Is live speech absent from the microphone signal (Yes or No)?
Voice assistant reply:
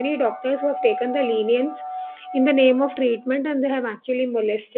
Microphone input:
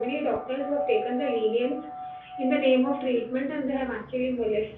Yes